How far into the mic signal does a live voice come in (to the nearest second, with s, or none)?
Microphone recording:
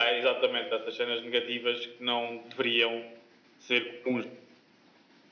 none